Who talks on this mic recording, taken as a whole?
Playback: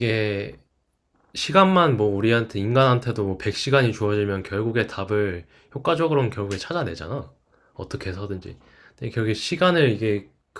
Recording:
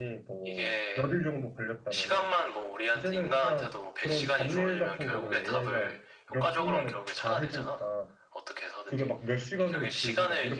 both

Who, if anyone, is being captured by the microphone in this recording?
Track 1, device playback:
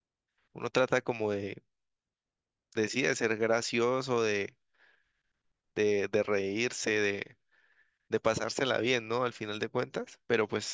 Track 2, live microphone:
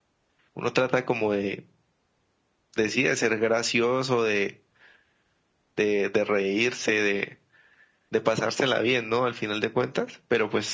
echo only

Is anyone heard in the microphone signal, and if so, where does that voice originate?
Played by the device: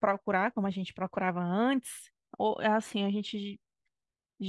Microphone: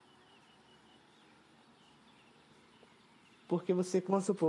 user only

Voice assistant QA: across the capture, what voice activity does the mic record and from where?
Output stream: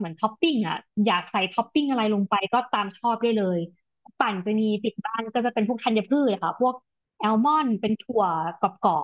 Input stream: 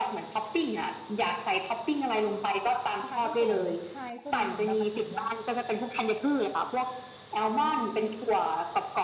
both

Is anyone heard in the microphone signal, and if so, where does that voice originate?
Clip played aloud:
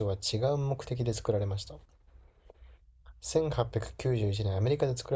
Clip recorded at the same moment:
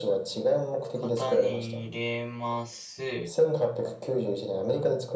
both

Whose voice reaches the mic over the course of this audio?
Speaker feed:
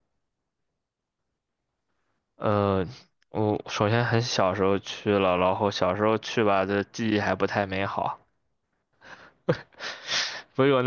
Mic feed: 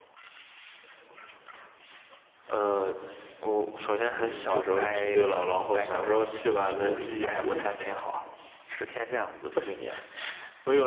both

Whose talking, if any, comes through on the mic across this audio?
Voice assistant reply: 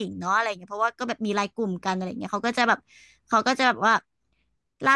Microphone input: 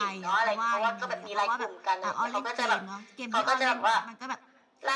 both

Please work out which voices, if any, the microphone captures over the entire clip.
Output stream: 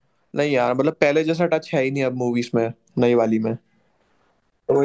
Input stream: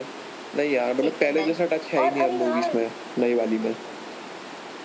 both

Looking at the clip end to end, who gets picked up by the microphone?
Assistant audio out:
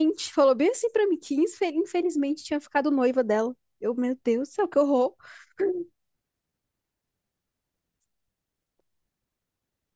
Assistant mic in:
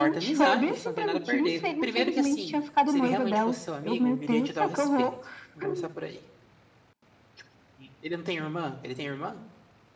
both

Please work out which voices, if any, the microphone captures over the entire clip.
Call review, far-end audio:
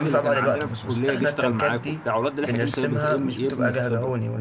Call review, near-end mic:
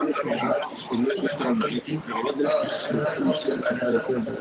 both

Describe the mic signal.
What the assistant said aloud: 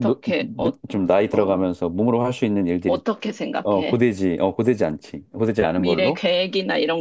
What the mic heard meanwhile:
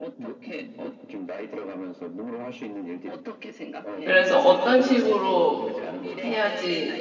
both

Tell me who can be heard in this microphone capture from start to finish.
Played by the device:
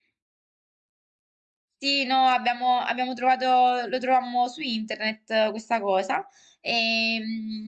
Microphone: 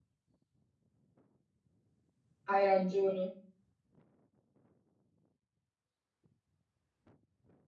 user only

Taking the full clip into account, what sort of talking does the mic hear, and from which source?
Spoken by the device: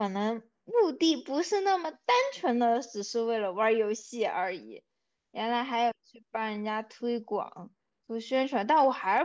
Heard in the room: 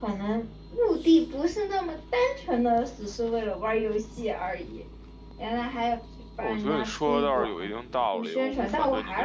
both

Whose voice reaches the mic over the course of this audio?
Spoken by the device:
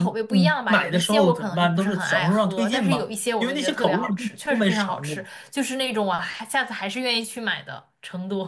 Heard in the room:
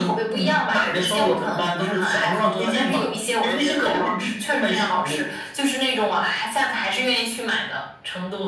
echo only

